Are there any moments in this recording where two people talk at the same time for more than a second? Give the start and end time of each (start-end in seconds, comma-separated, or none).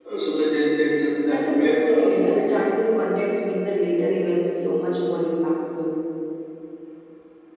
1.3-2.5